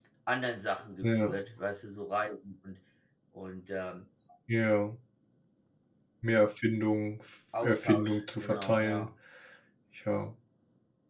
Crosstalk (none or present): present